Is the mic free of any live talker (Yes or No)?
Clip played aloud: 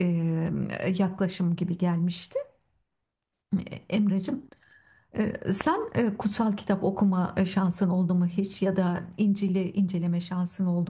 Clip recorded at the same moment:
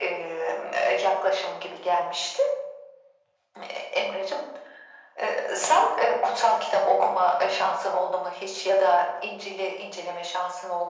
Yes